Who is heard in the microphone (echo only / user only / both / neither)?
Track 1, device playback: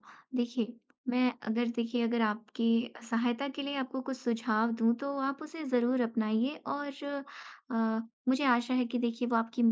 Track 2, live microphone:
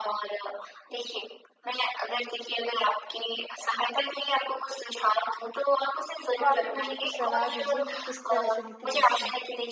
both